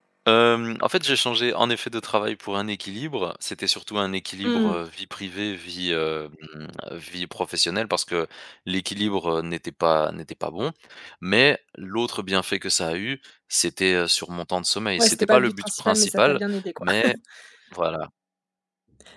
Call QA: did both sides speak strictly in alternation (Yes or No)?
No